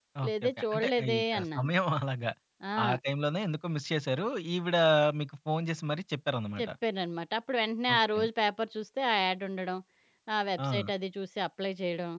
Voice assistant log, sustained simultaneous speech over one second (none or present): present